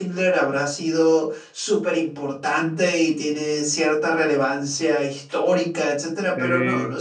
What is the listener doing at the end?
listening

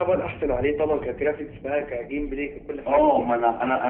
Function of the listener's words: taking over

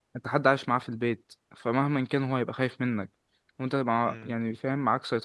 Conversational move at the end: listening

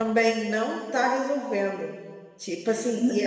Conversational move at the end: listening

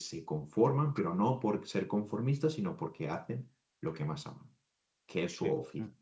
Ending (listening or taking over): taking over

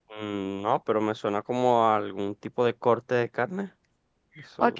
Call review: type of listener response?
taking over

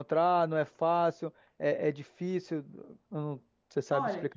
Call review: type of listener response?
taking over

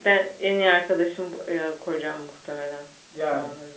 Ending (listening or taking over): taking over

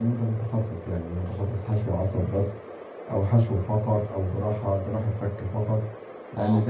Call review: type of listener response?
listening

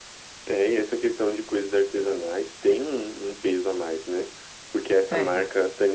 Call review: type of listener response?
listening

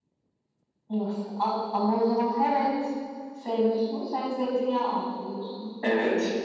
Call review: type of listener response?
taking over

